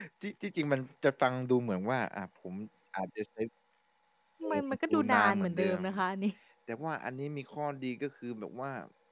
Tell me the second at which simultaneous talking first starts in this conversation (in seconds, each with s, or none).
4.5 s